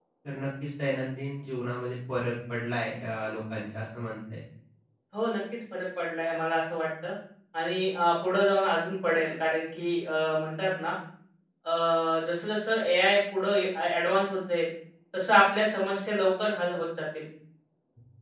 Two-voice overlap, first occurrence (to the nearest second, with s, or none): none